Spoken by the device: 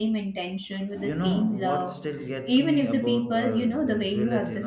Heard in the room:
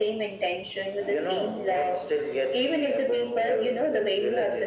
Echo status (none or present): present